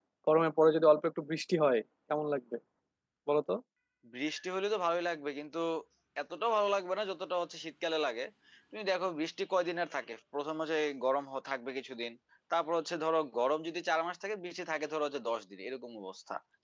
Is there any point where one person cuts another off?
No

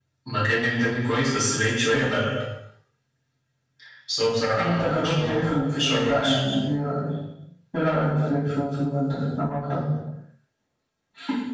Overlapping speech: Yes, from 4.6 s

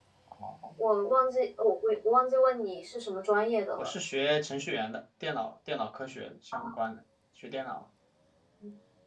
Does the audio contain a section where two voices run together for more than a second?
No

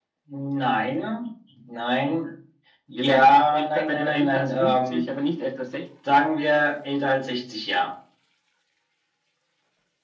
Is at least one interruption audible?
Yes, from 3.0 s

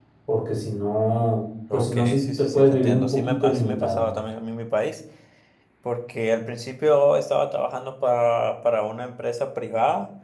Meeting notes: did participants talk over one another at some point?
Yes, from 1.7 s

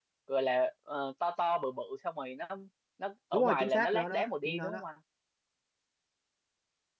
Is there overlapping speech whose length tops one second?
Yes, from 3.3 s

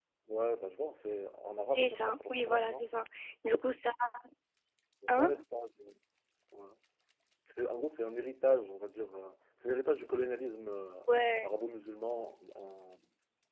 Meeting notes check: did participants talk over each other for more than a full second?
Yes, from 1.7 s

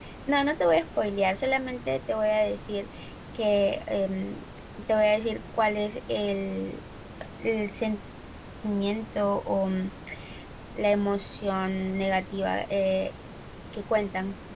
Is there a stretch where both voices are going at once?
No

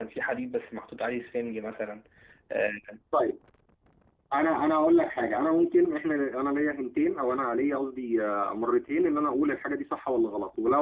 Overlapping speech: No

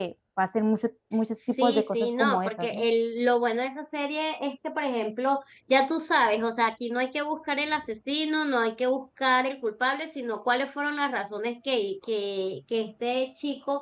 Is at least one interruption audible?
Yes, from 1.6 s

